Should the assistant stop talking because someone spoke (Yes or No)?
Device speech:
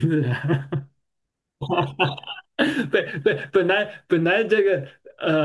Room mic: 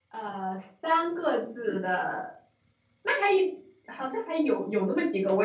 Yes